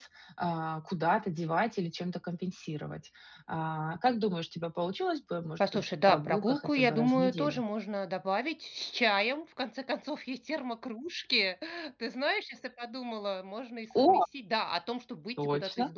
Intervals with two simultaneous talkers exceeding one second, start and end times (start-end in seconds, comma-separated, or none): 5.7-7.6